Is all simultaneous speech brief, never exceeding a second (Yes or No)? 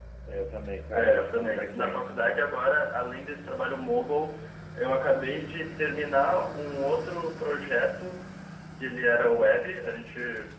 No